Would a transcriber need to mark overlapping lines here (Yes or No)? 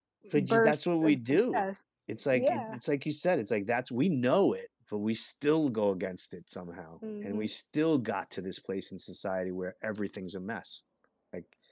Yes